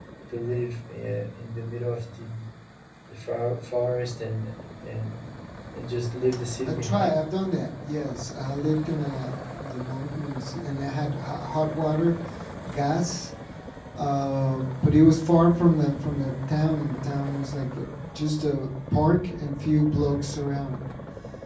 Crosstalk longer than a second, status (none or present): none